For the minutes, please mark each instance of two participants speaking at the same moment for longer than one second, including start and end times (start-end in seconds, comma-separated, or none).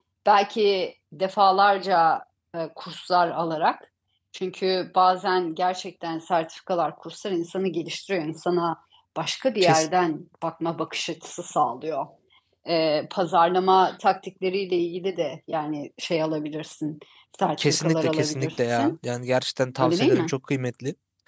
17.6-18.9